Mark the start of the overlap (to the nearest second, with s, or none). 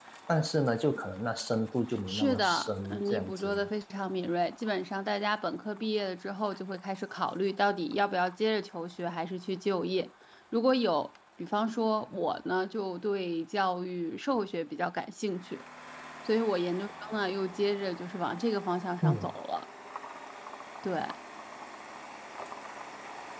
2 s